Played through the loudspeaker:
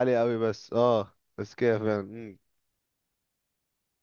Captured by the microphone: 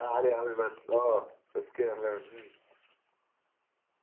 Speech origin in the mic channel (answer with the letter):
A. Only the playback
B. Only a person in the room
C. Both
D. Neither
A